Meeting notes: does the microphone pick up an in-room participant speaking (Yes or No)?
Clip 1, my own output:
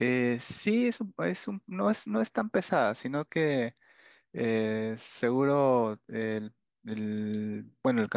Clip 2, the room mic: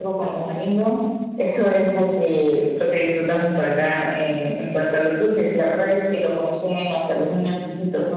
Yes